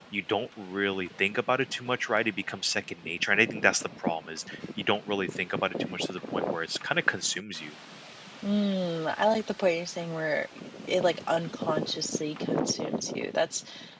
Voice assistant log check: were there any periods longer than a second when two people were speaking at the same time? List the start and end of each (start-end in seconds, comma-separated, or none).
none